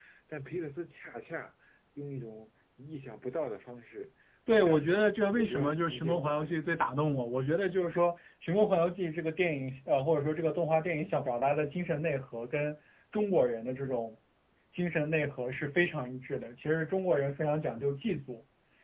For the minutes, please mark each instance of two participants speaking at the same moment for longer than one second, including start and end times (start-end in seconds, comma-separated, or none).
4.5-6.5